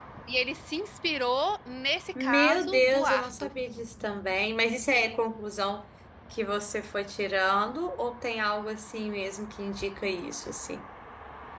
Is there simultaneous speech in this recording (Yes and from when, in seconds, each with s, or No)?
Yes, from 2.2 s